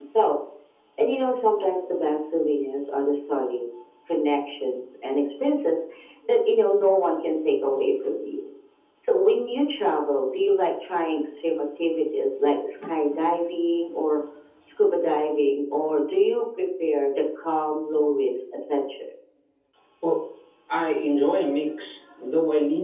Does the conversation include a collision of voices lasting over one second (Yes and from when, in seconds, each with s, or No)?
No